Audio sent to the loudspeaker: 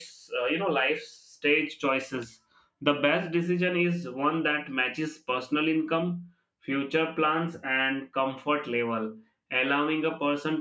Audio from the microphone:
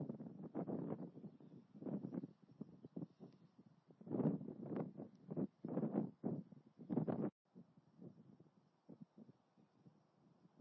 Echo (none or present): none